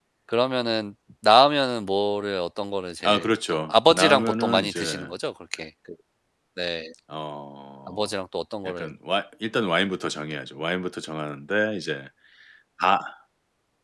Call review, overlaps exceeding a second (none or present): present